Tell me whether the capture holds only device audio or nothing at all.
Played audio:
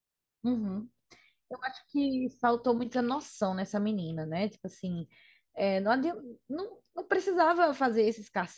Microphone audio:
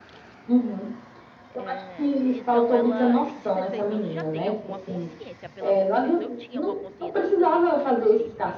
No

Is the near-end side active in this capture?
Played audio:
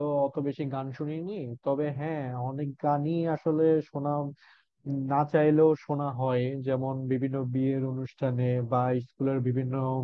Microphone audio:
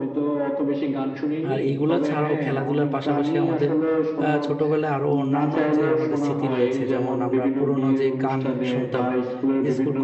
Yes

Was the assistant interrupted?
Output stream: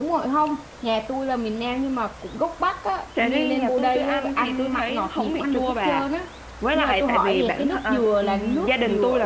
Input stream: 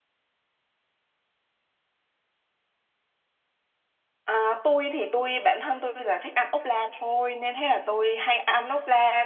Yes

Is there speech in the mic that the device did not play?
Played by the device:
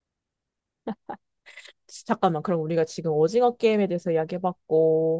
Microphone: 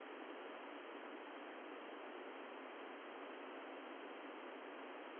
No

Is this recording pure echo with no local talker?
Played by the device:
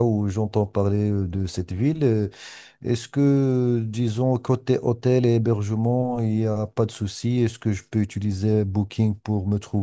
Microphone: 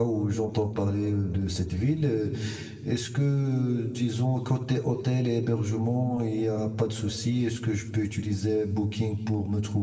Yes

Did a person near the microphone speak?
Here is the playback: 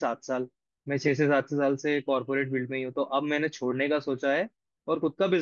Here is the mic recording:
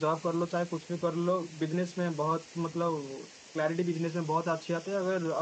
Yes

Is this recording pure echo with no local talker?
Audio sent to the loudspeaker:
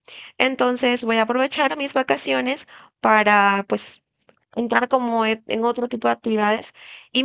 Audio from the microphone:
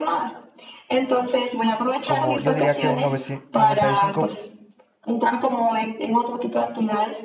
No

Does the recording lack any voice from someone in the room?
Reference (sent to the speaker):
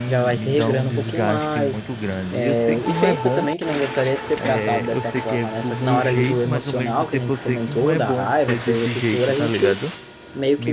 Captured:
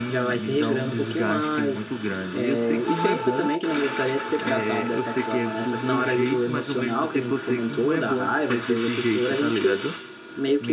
Yes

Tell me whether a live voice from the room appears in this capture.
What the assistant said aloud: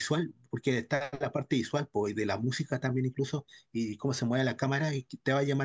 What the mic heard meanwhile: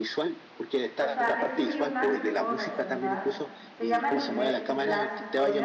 Yes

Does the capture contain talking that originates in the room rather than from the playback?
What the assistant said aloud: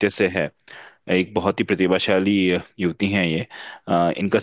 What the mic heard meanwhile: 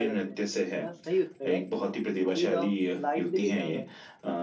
Yes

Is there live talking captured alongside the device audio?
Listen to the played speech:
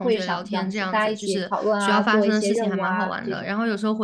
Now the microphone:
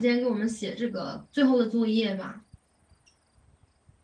Yes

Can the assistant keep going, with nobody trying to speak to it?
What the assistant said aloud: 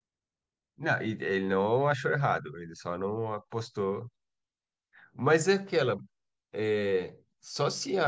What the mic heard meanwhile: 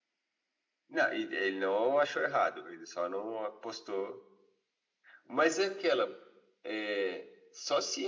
Yes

